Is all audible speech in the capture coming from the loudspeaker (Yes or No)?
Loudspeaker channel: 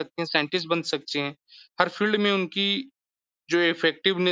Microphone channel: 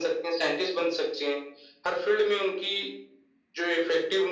Yes